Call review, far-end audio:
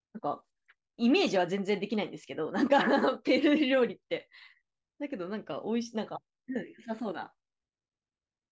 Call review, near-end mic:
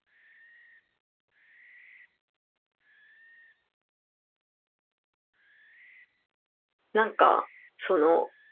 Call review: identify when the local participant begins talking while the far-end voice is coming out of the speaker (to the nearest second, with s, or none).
7 s